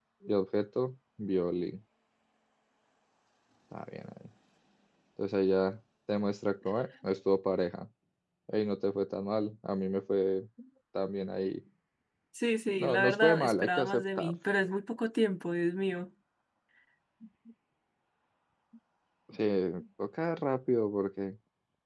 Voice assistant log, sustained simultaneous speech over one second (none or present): present